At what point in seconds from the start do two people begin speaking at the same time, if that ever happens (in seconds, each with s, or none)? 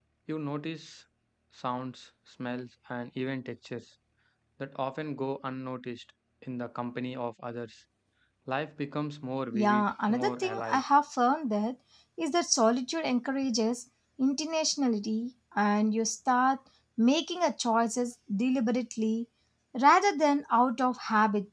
9.5 s